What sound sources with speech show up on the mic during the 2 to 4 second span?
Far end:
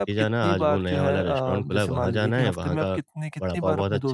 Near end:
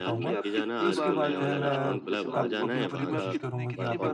both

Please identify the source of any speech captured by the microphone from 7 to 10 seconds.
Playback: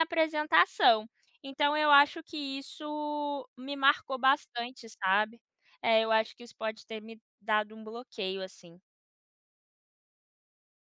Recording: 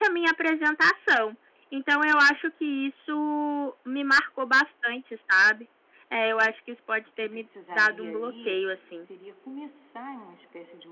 both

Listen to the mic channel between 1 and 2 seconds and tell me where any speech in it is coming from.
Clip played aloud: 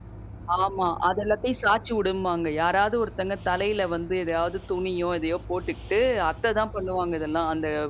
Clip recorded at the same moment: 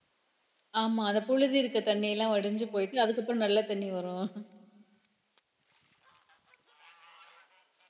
user only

